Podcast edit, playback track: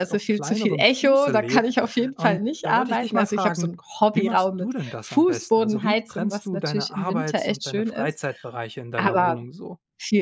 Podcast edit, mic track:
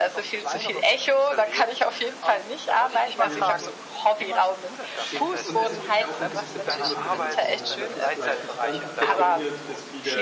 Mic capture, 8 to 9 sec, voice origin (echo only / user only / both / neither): both